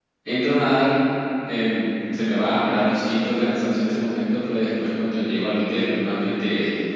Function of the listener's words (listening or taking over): listening